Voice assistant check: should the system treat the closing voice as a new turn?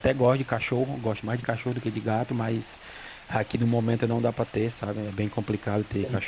No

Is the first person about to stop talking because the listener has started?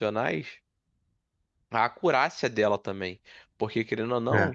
No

